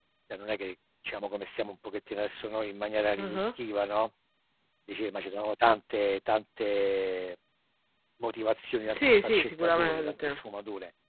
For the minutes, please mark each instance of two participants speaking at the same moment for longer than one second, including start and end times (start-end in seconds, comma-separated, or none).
8.8-10.4